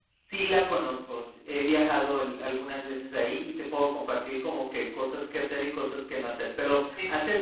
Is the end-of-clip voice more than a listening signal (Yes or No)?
No